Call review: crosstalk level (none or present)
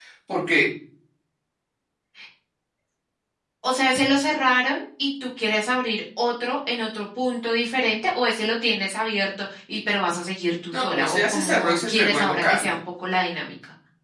present